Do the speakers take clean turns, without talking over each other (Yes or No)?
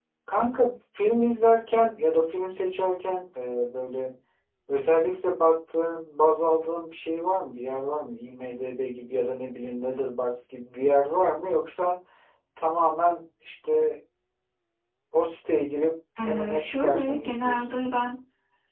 No